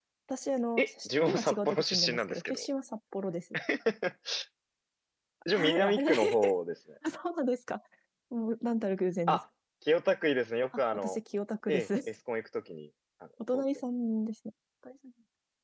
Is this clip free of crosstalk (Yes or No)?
No